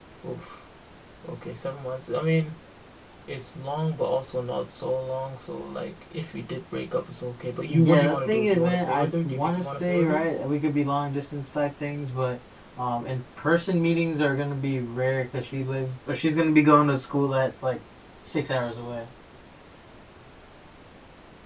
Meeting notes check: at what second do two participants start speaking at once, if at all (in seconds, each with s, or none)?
7.7 s